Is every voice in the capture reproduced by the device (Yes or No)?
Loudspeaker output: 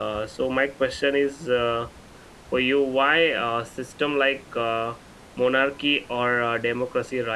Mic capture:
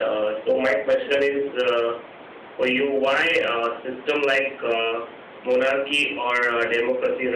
No